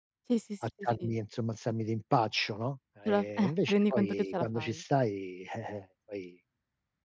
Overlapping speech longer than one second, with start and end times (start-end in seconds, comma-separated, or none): 3.0-4.8